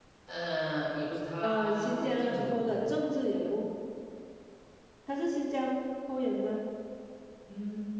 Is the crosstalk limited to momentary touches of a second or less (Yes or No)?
No